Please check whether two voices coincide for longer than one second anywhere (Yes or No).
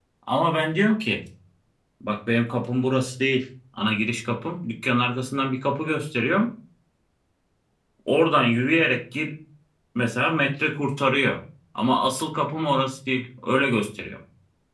No